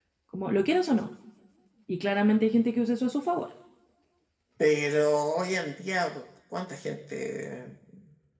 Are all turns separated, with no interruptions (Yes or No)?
Yes